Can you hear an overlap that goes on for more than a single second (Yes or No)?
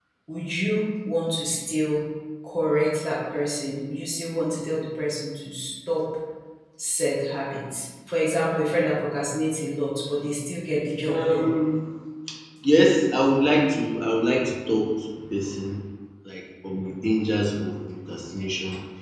No